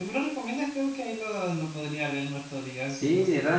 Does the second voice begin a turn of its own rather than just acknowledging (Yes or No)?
Yes